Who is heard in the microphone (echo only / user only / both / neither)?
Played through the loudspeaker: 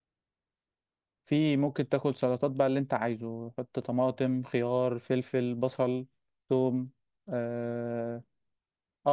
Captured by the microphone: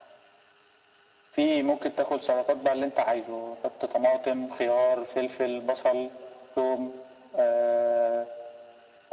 echo only